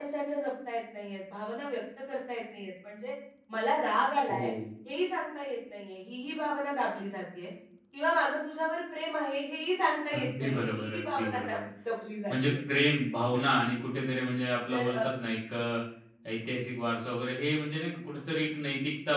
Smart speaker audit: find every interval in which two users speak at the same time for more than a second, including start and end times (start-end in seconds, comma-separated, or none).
10.2-11.6